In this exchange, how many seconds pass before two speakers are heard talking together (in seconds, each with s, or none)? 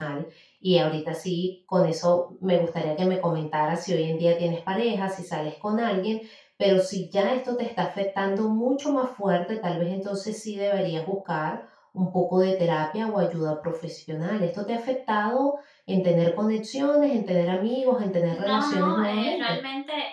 18.3 s